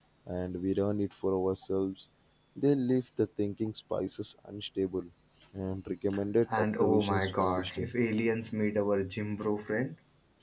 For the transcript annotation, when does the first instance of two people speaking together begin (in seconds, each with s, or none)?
6.5 s